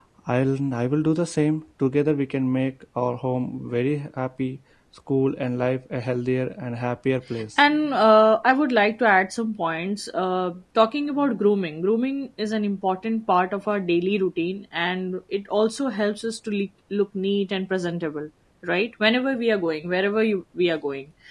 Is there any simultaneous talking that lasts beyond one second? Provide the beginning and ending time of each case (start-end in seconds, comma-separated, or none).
none